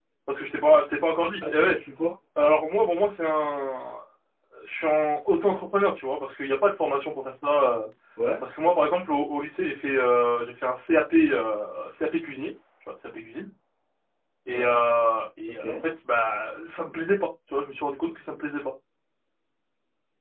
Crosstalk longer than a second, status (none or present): none